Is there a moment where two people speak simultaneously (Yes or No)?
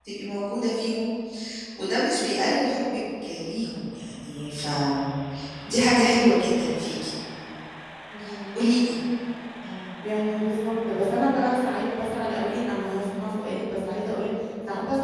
No